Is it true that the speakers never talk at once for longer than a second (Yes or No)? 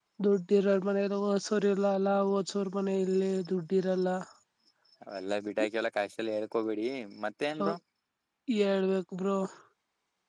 Yes